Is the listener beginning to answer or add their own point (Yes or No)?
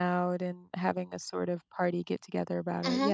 Yes